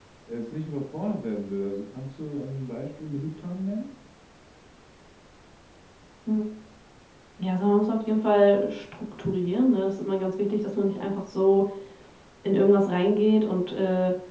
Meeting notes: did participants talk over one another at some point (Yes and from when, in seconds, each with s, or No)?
No